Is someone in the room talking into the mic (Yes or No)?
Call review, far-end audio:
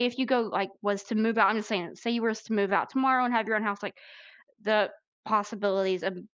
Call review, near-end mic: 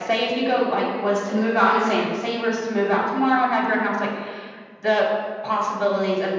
No